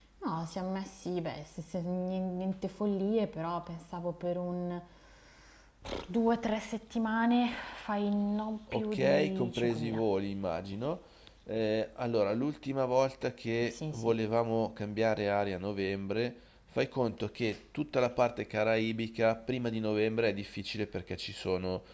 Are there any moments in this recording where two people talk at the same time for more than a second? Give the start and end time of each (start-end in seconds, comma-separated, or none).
8.7-10.0